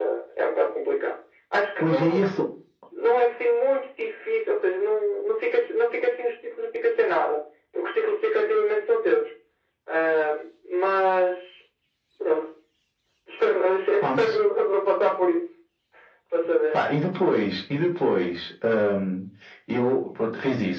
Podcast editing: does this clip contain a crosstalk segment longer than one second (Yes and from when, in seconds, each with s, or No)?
No